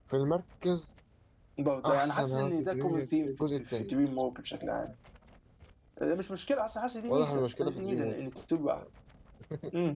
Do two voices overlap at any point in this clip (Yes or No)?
Yes